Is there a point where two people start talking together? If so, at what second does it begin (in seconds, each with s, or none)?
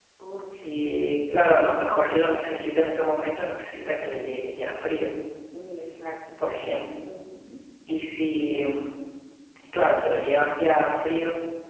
none